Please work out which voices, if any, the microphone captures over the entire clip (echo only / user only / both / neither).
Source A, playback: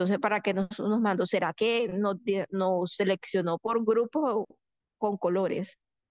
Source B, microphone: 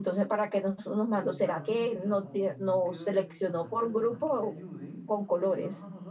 both